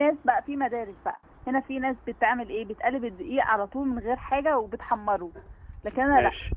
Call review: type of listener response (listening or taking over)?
listening